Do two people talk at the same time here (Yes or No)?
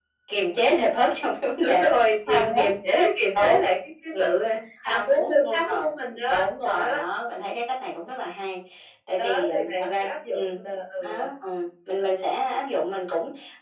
Yes